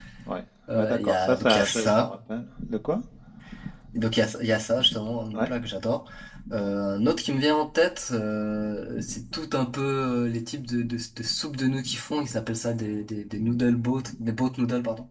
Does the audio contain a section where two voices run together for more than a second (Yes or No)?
Yes